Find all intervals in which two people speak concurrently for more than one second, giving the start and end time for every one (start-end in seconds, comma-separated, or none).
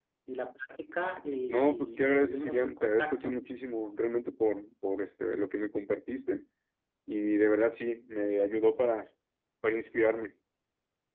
1.5-3.4